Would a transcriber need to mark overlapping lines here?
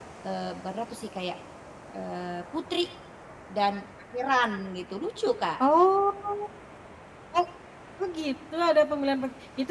No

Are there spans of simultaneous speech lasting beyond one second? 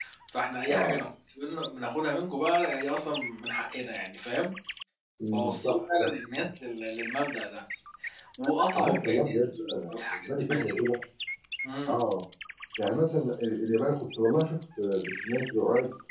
Yes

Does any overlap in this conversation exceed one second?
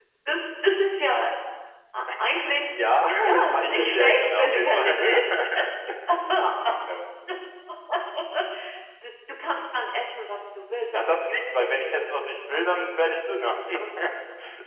Yes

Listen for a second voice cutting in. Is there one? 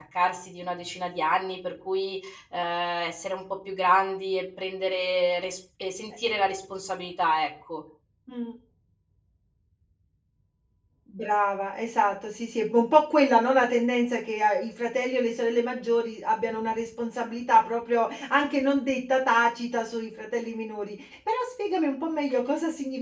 No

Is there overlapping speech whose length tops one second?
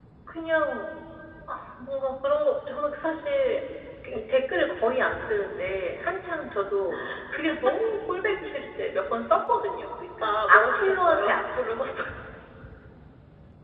Yes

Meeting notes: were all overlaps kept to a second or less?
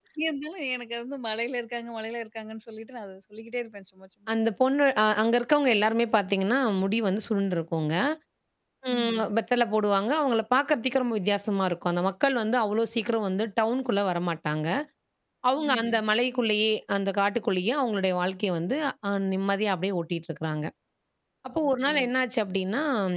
Yes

